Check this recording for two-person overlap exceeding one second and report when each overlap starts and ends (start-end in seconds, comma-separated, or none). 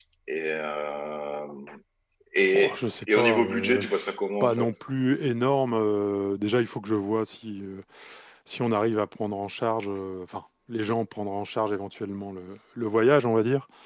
2.5-3.8